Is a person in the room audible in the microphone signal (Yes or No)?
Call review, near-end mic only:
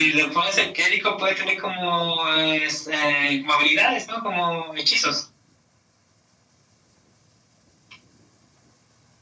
No